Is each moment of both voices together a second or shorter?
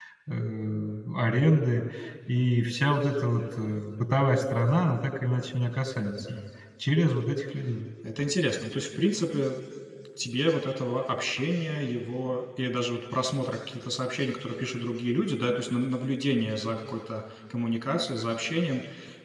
Yes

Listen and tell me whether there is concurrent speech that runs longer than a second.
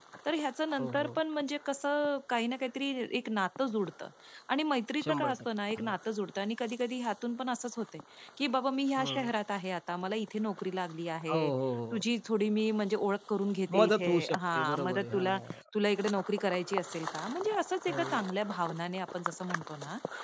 Yes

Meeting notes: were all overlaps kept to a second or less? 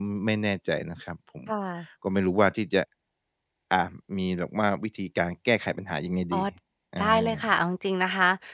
Yes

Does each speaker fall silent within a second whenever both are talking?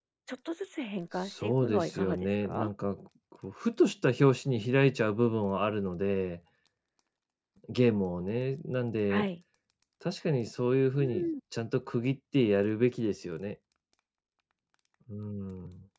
No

